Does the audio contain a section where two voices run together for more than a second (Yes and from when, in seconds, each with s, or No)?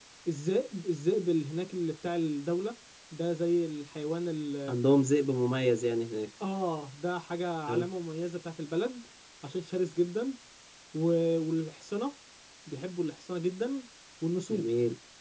No